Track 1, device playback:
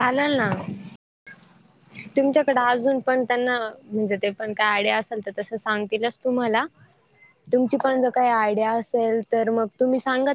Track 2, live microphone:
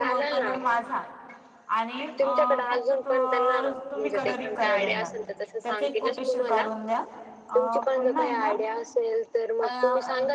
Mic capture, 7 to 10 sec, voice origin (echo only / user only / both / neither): both